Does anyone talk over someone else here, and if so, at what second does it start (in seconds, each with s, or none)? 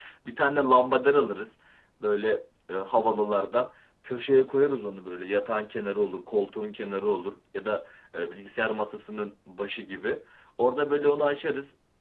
none